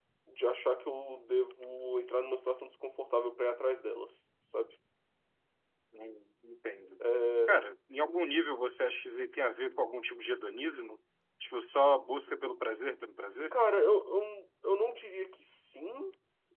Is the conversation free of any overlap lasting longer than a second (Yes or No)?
Yes